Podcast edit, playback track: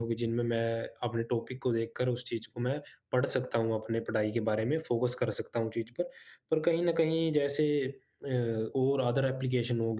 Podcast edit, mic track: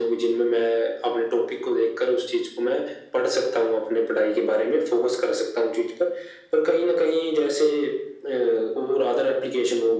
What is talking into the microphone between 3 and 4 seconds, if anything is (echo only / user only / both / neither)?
echo only